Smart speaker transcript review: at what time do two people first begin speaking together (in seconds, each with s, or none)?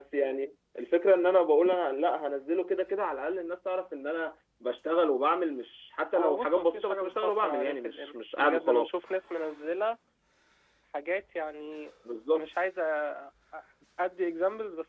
6.2 s